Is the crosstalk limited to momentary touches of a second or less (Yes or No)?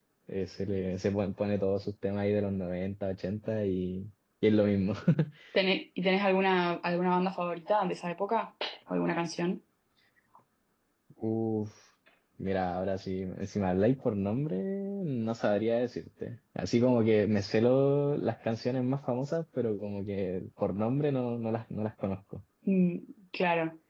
Yes